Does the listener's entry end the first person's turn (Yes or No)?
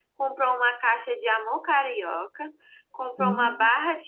No